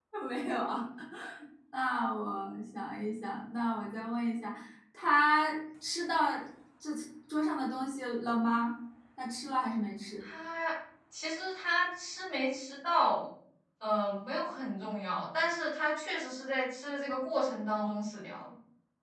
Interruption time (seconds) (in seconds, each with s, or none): none